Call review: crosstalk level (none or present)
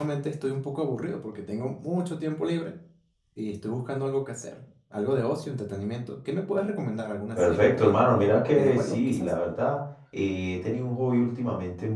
present